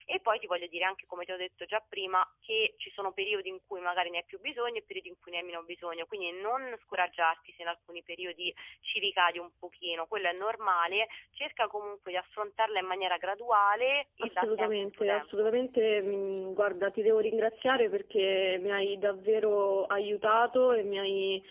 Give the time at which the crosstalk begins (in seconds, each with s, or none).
14.2 s